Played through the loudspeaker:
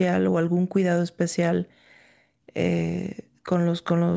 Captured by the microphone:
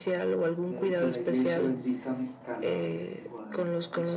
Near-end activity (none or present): present